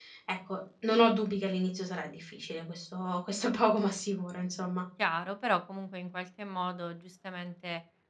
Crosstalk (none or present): none